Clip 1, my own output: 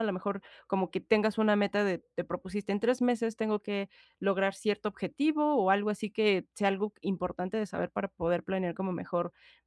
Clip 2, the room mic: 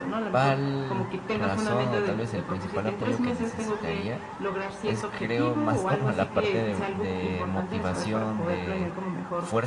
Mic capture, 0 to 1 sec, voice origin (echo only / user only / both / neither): both